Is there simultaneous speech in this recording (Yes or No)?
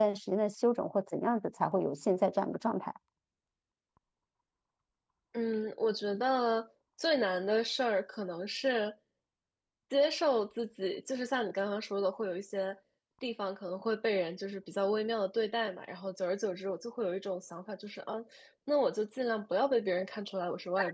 No